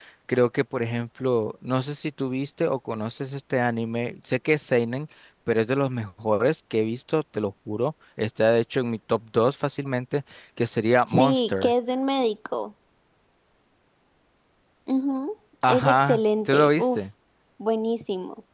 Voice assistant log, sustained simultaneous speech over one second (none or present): present